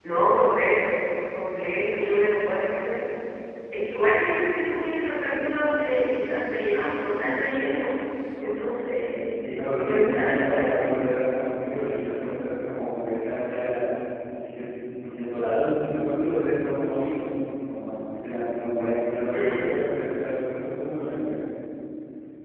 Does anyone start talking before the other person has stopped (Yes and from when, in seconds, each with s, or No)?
Yes, from 9.8 s